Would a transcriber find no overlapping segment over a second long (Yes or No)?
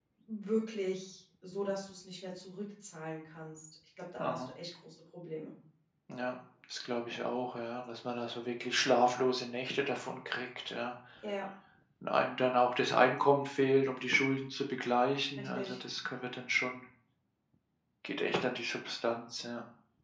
Yes